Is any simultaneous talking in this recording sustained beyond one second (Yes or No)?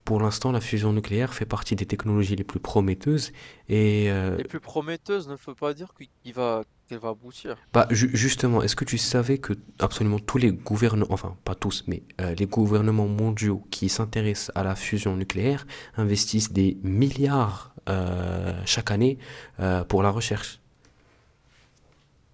No